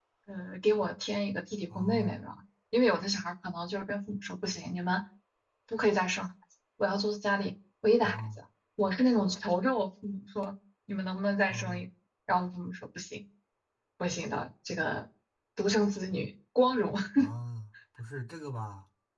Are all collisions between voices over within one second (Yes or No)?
Yes